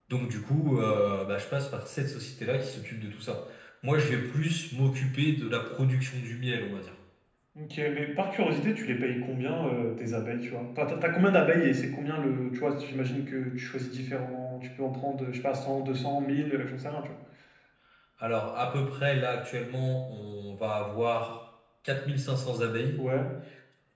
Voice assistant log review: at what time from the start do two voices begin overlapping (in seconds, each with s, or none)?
none